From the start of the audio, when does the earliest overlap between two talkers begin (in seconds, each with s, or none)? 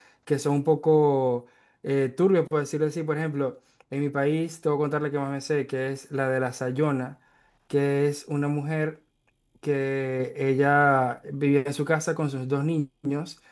none